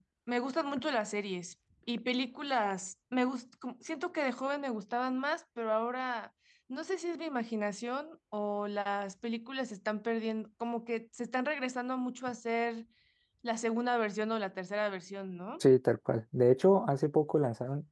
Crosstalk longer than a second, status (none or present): none